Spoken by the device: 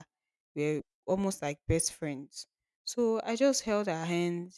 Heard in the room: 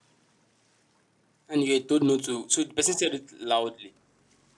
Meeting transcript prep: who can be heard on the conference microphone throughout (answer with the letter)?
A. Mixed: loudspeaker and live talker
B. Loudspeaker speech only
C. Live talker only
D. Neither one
C